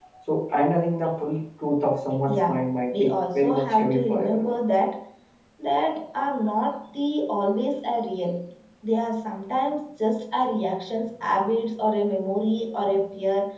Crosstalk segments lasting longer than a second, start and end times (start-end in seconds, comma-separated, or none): 2.9-4.6